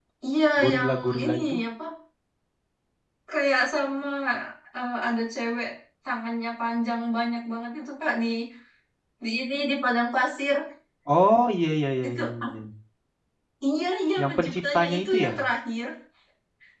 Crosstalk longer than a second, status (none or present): present